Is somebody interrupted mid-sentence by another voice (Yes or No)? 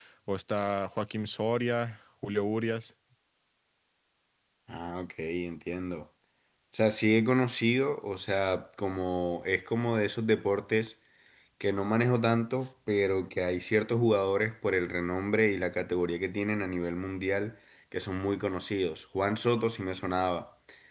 No